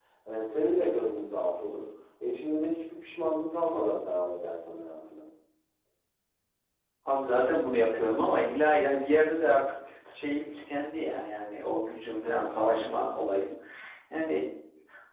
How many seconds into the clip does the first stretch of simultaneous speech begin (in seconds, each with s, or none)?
none